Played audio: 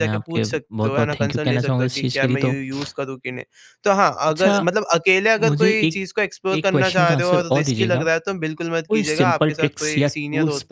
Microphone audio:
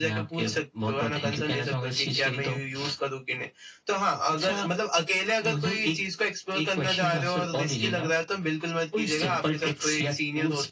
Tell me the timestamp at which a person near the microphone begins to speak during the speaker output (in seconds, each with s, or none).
none